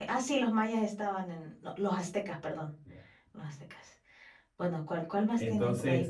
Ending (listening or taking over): taking over